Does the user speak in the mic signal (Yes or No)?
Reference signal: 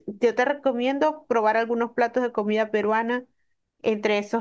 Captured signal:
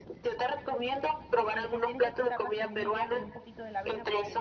Yes